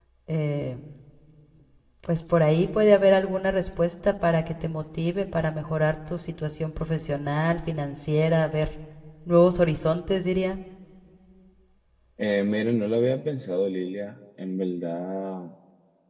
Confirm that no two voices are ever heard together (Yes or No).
Yes